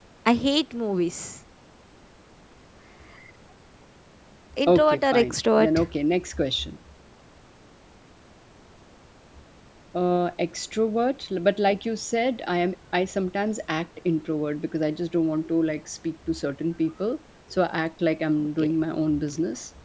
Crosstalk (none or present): present